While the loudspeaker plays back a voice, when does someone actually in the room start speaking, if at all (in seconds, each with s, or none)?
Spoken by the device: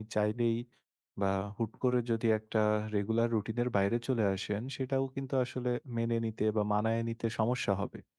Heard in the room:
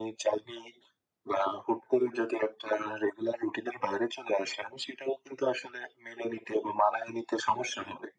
none